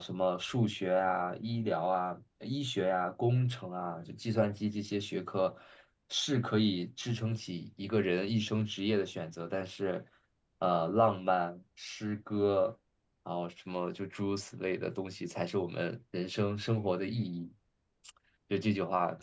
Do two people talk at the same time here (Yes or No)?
No